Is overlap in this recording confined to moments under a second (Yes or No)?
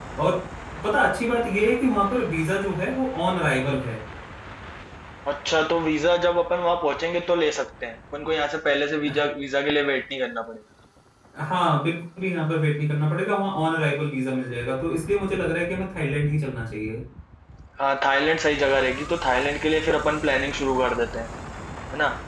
Yes